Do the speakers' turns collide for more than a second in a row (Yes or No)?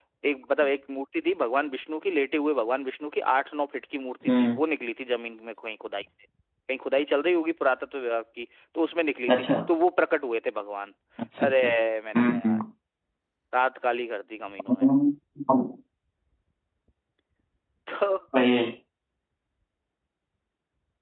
No